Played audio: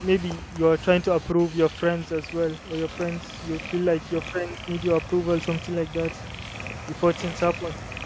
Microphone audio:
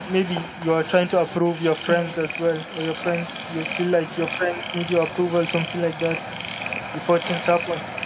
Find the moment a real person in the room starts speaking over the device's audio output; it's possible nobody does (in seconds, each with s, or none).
1.8 s